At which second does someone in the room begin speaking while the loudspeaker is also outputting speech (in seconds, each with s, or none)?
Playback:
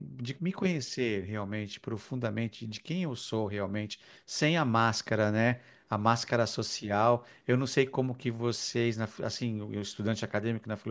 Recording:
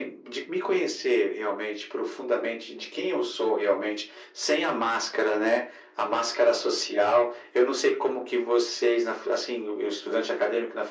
none